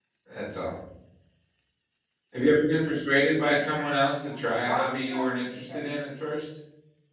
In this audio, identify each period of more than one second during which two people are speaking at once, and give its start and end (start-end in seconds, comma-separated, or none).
4.2-5.8